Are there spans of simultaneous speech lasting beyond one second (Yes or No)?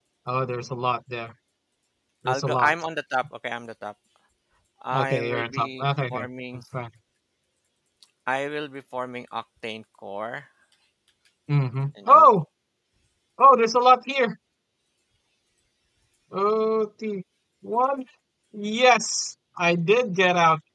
Yes